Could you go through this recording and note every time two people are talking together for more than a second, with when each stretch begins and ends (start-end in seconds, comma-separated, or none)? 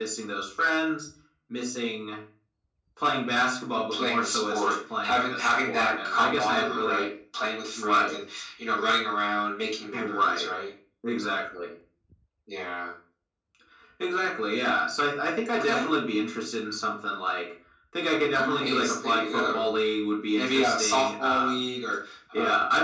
3.9-7.0, 18.3-19.7, 20.4-21.6